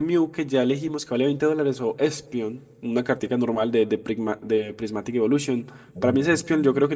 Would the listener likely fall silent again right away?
Yes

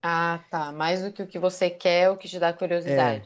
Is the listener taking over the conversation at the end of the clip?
Yes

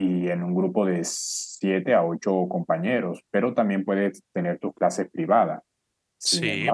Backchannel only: Yes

